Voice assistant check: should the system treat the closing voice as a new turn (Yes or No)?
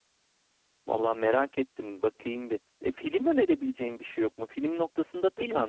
No